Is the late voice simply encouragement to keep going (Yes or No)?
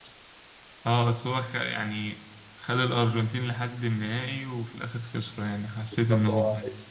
No